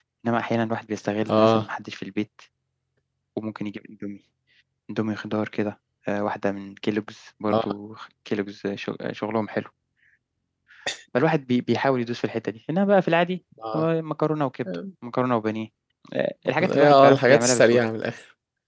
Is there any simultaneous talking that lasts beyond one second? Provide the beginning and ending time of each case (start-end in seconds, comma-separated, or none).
16.6-17.8